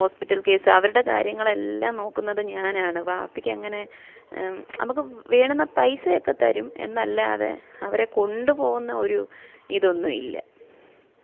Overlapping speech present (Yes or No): No